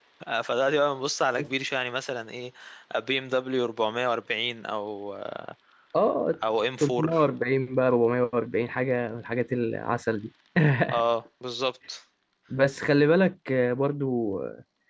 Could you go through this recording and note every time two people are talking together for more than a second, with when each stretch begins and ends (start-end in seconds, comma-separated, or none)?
none